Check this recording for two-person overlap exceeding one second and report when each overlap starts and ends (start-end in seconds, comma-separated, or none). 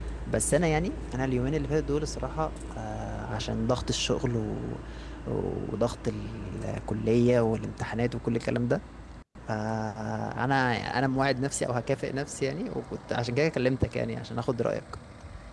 none